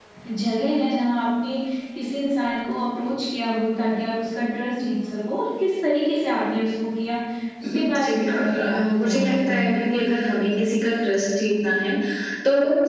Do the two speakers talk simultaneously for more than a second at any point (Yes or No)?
Yes